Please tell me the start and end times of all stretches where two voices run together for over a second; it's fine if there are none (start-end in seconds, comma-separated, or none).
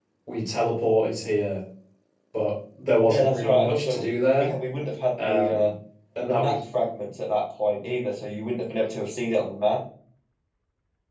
3.0-4.5